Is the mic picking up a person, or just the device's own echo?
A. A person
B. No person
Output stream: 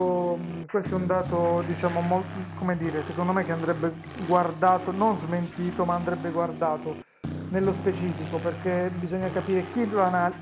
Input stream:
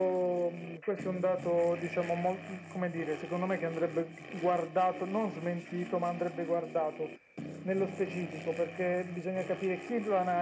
B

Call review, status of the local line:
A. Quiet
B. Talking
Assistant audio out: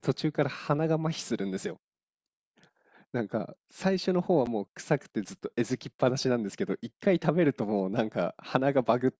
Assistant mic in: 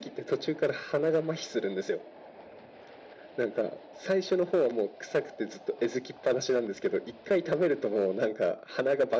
A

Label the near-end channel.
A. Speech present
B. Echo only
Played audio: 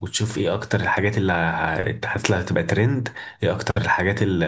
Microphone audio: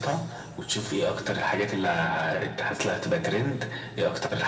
B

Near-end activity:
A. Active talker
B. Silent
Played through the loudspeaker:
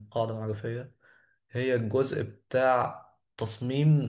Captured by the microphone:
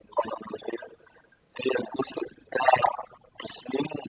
B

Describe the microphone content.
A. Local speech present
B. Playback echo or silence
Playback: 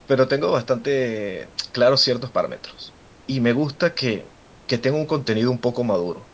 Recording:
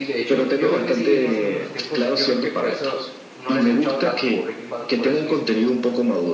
A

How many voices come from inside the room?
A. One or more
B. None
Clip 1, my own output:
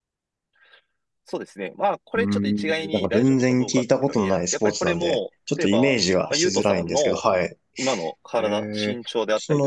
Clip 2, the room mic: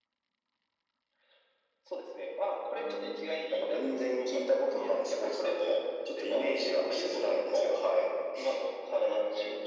B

